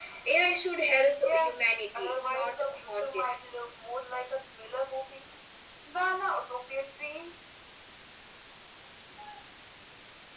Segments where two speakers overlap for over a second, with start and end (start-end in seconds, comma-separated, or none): 1.9-3.2